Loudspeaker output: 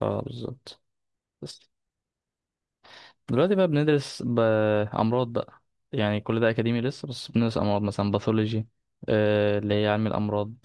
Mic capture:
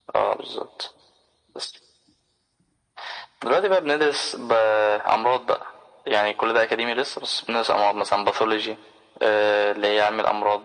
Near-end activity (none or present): none